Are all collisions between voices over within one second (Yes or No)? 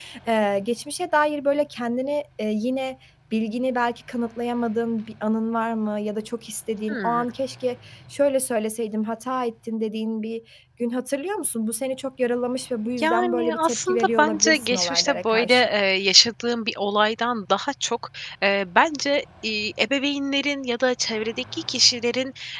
No